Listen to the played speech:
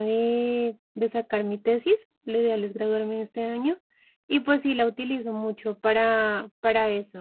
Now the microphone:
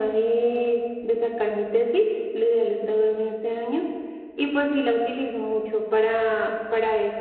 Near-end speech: none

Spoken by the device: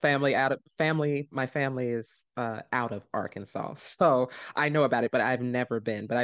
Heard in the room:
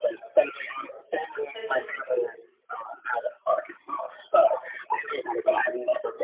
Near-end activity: present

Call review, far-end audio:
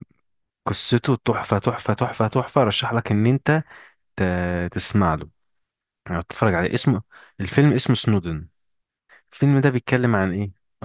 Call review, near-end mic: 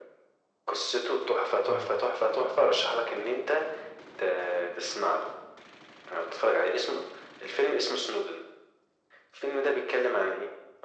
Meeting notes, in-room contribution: present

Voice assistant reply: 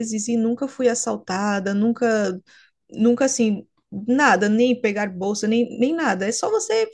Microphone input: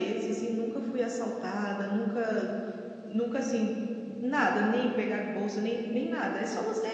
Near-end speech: none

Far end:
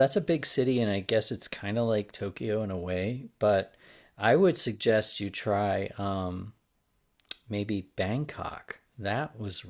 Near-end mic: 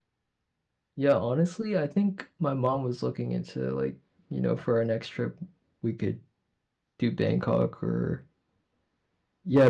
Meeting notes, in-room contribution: present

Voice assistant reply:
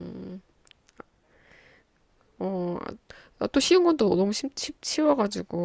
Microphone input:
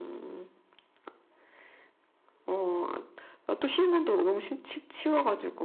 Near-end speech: none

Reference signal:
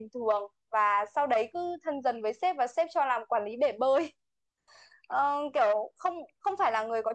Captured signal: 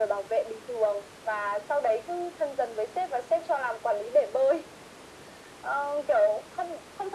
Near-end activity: none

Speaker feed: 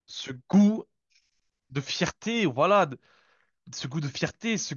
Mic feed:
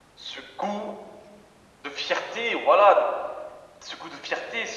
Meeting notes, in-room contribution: none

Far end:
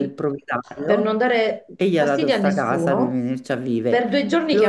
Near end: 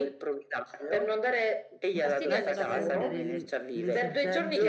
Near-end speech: present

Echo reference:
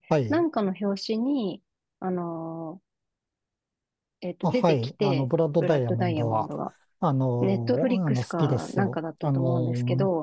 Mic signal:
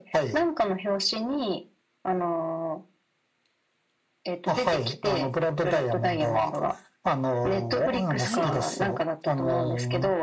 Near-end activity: present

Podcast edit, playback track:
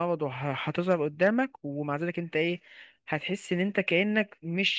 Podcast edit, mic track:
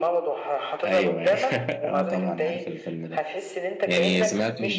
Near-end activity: present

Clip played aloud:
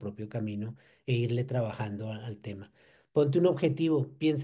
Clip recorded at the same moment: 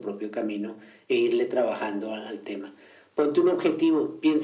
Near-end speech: none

